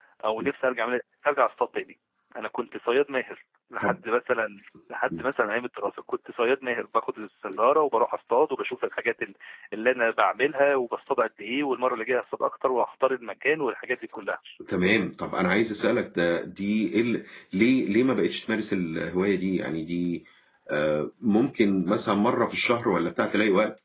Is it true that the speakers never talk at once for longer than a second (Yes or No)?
Yes